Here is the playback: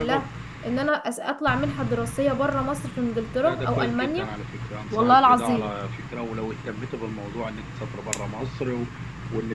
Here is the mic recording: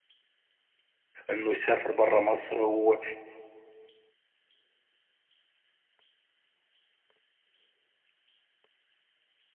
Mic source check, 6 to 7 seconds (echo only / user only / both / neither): neither